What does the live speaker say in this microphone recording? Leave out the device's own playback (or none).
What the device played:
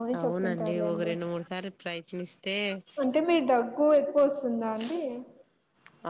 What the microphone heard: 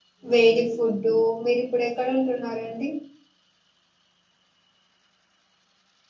వేడి ఫుడ్ డు మీరిప్పుడు ఎక్కడ ఉంటున్నరండి